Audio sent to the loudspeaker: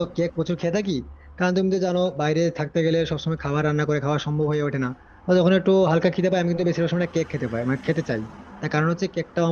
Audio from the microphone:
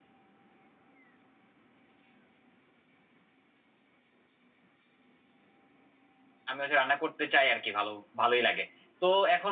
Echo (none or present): none